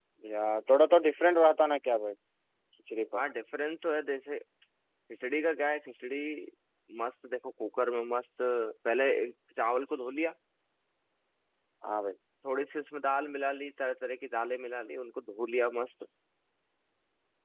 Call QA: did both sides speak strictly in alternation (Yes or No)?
Yes